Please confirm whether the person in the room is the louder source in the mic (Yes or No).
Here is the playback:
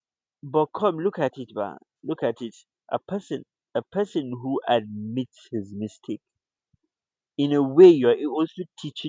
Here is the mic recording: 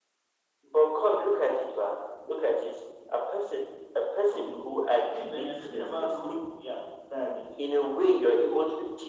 No